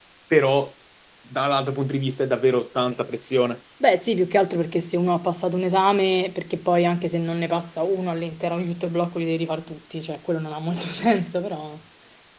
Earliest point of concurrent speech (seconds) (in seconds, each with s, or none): none